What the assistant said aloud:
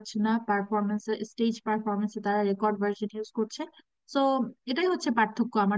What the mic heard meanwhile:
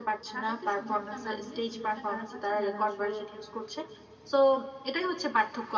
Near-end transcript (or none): তাদেরকে সুযোগটা না দিয়ে সুযোগটা কারা পাচ্ছে যারা আসলে